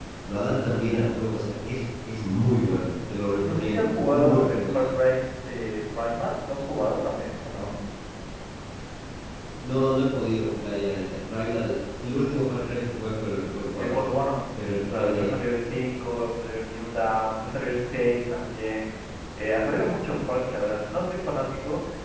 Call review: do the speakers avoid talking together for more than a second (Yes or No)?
No